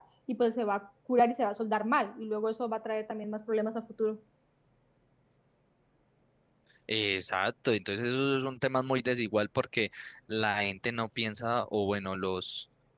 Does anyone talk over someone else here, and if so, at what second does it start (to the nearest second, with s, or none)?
none